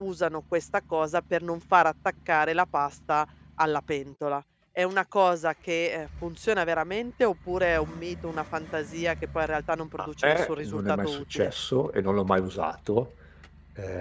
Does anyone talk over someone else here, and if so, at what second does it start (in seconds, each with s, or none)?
10.2 s